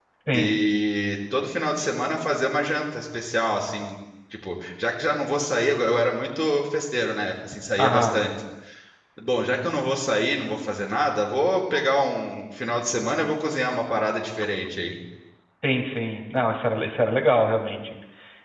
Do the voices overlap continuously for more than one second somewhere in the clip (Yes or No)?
No